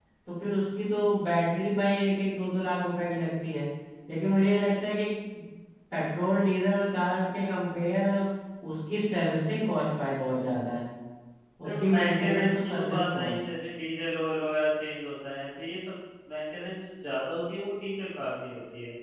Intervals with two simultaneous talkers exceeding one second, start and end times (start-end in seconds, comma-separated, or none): 11.7-13.4